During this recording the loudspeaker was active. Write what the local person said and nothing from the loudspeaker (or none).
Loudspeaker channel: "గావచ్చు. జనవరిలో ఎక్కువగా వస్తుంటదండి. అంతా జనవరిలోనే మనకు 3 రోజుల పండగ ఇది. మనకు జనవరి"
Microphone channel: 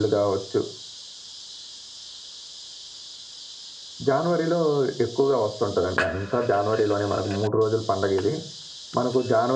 none